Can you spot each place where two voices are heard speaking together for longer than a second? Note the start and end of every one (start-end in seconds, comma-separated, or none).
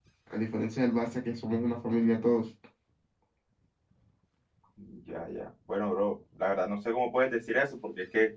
none